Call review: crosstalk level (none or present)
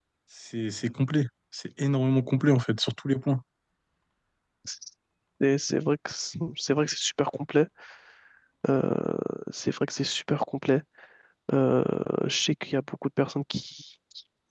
none